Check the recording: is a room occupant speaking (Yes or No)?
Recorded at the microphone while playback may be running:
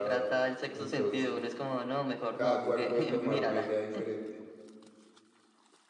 Yes